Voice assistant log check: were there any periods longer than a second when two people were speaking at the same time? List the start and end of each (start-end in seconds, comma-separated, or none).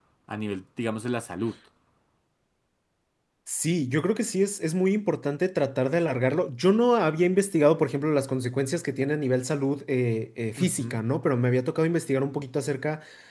none